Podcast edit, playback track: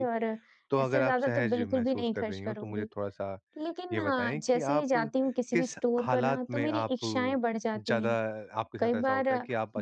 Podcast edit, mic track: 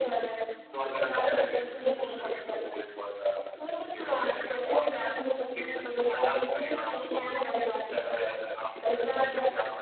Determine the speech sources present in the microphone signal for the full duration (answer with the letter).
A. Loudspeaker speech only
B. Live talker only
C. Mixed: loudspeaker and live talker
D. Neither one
A